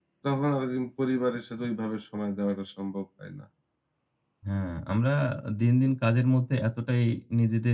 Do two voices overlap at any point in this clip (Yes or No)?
No